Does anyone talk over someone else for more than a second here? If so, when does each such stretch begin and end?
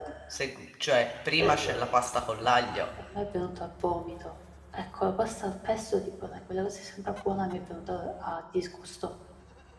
none

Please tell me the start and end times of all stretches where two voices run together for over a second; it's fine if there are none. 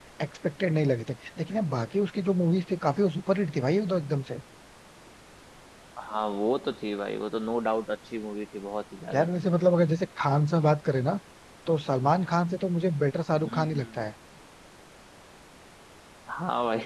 none

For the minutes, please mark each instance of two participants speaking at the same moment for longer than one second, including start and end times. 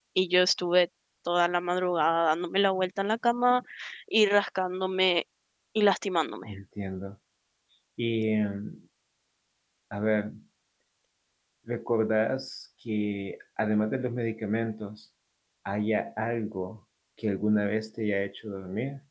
none

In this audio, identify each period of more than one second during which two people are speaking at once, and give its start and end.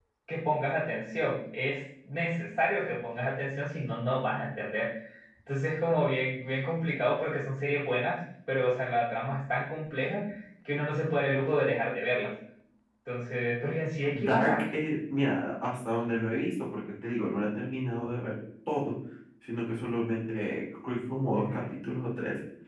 none

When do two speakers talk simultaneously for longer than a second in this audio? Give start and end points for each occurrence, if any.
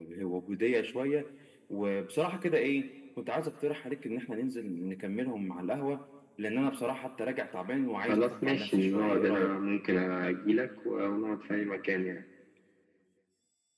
8.1-9.6

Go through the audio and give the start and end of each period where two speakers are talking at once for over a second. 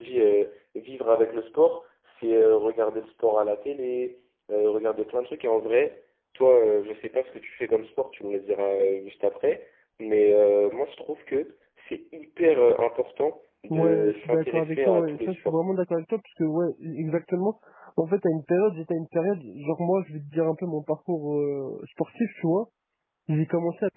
13.7-15.6

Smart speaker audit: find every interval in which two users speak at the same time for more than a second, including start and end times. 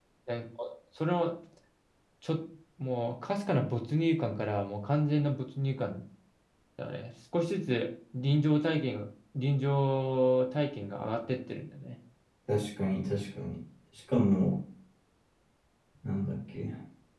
none

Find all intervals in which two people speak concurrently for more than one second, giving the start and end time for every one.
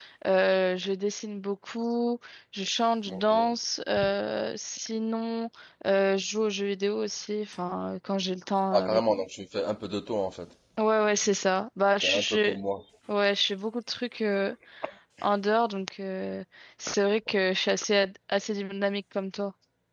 none

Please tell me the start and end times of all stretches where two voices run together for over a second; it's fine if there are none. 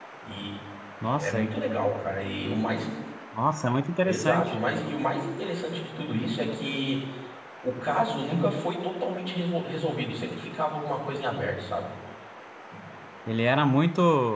none

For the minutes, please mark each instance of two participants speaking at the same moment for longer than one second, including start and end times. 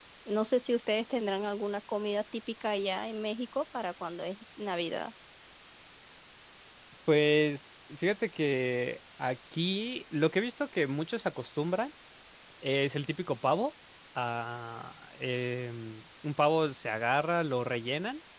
none

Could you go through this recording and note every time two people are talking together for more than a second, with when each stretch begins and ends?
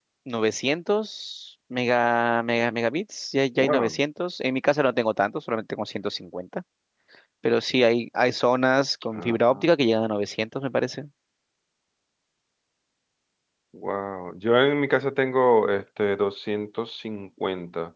none

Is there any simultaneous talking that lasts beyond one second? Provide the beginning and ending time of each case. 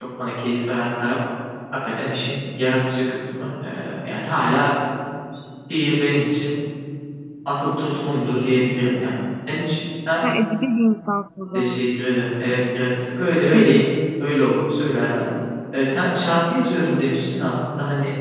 none

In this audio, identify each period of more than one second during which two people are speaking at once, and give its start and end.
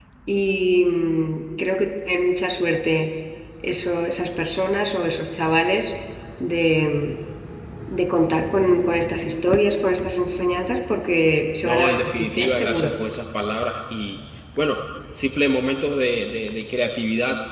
11.6-12.9

